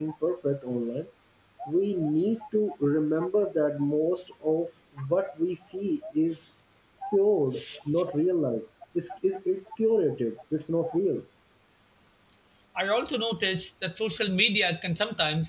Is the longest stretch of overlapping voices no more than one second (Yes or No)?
Yes